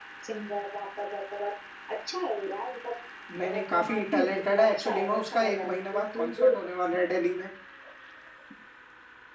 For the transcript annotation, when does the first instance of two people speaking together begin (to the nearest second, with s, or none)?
3 s